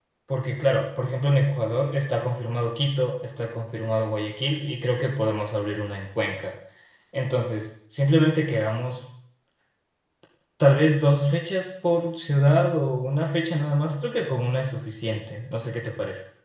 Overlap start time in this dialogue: none

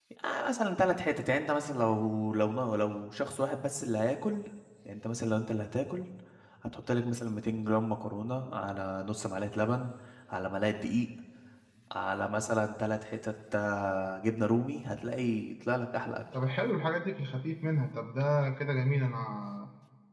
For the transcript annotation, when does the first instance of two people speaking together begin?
none

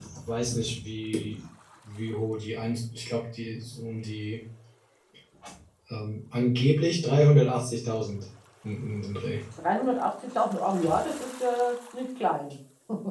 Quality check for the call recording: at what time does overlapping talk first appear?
none

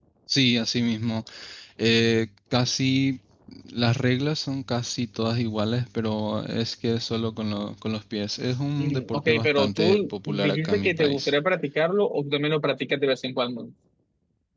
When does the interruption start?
9 s

